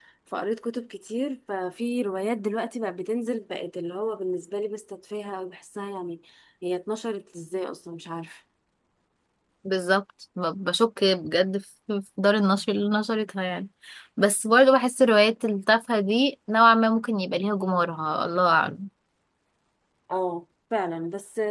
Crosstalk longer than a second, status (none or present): none